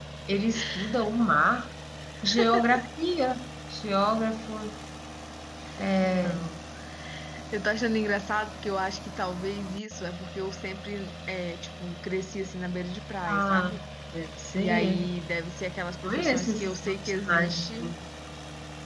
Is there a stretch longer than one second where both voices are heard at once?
Yes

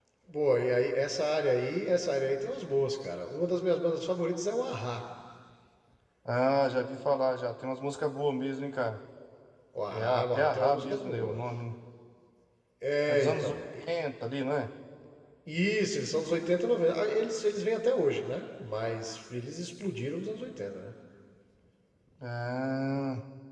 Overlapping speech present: Yes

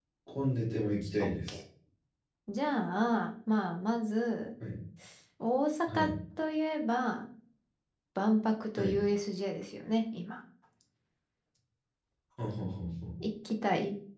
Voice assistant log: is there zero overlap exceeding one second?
Yes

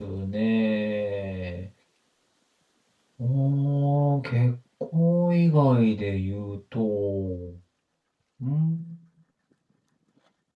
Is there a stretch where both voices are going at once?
No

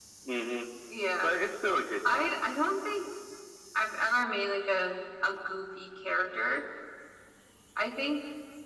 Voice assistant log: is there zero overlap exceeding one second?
Yes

